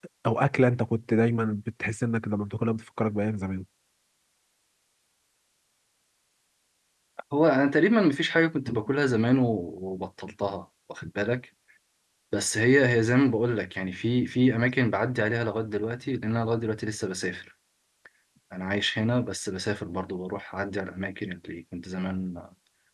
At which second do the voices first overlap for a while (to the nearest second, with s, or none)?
none